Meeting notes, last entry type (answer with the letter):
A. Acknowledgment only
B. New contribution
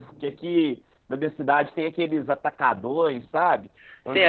B